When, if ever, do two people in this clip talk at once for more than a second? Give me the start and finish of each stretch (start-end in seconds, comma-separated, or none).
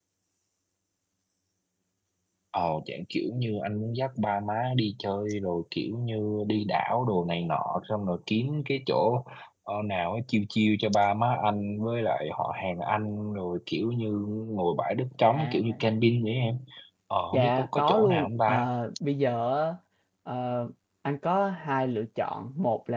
17.3-18.7